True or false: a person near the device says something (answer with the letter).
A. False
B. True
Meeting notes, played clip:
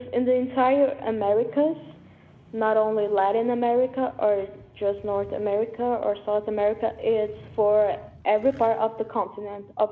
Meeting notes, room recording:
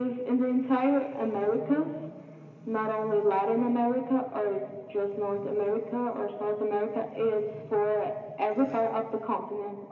A